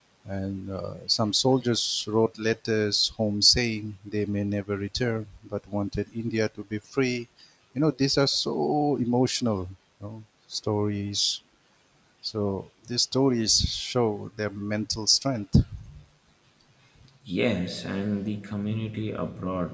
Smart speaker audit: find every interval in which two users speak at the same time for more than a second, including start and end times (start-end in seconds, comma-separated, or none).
none